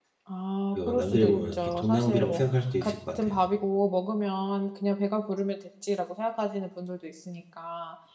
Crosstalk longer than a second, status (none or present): present